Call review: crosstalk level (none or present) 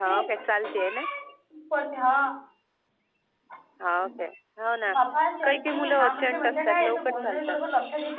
present